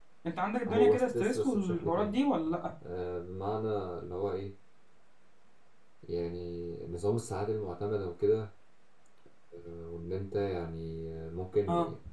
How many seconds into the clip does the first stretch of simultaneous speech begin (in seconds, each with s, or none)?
0.7 s